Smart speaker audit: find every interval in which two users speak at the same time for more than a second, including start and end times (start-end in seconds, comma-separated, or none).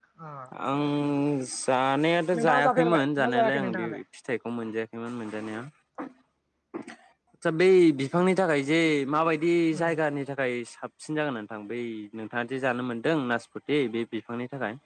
2.4-4.0